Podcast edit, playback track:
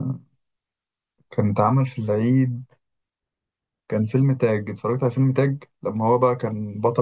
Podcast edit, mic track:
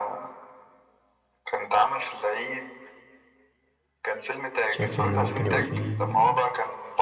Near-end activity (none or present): present